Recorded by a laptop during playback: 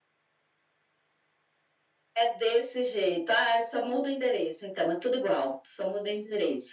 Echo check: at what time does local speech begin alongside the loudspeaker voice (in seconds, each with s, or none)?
none